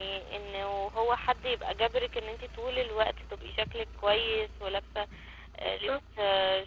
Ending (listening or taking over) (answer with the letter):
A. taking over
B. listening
B